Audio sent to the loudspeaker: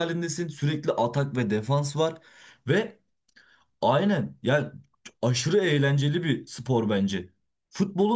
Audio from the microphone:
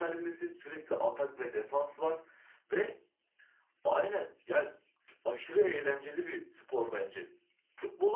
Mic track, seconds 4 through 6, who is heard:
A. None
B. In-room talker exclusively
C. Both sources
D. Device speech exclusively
D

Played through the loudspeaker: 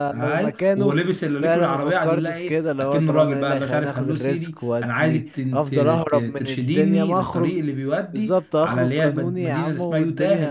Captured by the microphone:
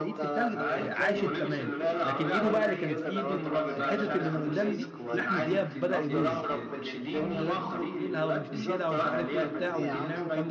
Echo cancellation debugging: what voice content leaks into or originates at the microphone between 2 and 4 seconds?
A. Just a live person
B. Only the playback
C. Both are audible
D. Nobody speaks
C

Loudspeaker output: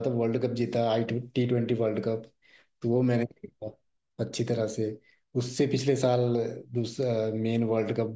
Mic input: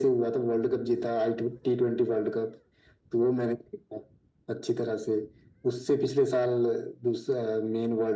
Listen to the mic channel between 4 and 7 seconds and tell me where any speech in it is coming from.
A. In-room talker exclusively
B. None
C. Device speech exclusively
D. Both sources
C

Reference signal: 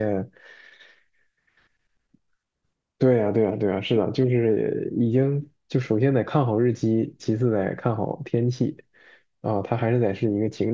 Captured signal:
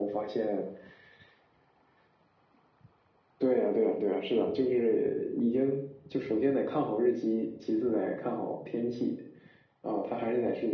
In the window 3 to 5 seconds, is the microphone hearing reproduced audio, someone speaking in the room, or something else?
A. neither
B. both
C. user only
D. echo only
D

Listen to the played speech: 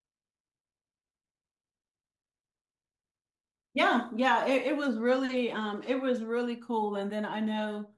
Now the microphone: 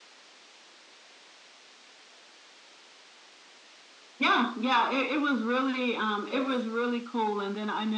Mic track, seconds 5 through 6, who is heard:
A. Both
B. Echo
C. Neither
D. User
B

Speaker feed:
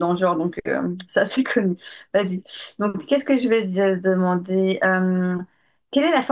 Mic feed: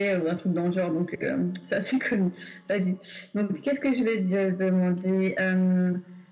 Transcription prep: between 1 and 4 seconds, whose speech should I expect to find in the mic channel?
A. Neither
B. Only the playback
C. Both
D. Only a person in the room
B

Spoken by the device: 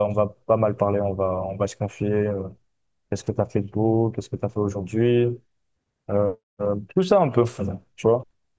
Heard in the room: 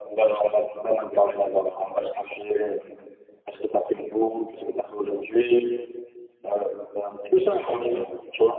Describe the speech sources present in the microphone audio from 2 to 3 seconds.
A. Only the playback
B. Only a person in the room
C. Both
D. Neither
A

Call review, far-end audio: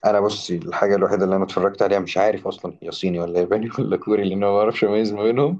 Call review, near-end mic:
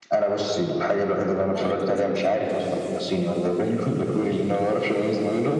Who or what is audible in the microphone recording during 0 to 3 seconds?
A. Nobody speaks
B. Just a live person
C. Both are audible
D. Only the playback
C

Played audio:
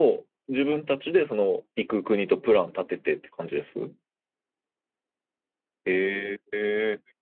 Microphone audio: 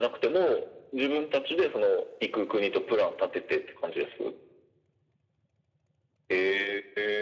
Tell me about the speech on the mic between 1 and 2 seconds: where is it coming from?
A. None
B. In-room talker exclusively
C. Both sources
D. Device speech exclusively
D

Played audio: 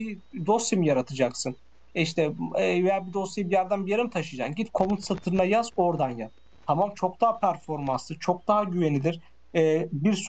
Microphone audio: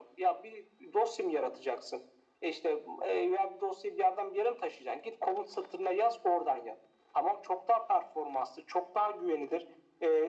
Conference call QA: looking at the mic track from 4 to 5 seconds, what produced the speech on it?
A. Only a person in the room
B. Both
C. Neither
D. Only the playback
D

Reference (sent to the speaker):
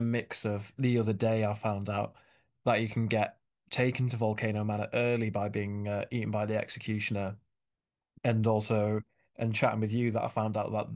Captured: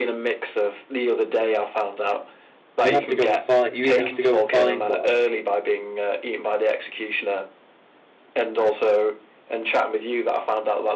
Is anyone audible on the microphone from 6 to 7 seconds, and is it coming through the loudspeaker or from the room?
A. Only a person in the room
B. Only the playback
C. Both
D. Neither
B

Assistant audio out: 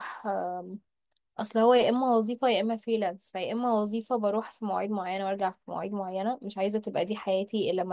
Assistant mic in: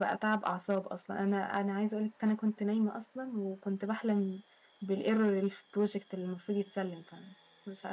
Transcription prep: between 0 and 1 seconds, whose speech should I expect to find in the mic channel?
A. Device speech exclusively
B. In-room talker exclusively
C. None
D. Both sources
B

